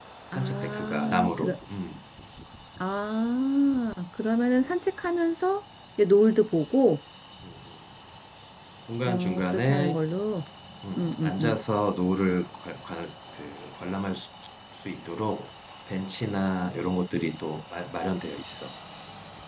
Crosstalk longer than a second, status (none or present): present